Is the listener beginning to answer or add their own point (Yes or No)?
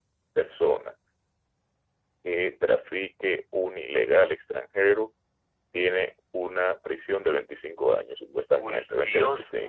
Yes